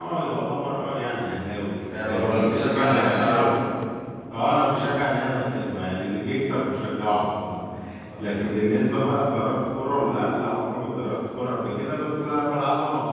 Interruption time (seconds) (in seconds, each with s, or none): 1.9 s